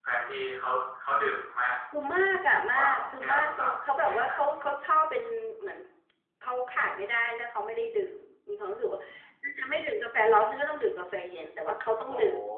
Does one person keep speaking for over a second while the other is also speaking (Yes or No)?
Yes